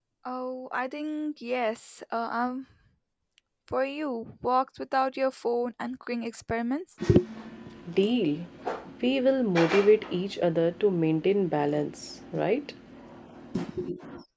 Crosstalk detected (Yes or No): No